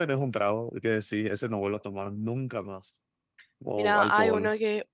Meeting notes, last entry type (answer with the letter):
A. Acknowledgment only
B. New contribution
B